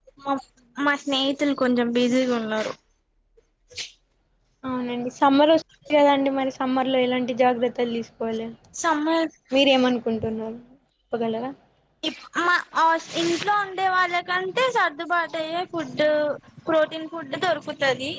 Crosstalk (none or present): none